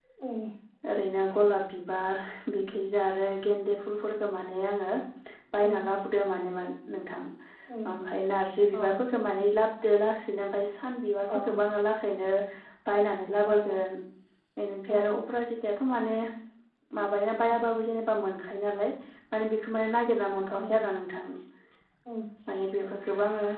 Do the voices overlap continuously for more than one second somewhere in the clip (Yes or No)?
No